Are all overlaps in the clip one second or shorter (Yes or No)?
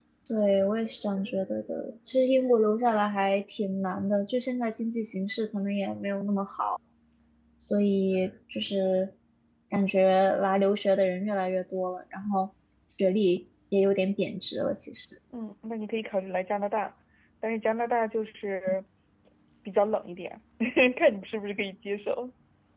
Yes